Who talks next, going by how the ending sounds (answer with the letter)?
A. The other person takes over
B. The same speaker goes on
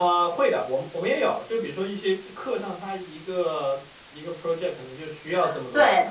A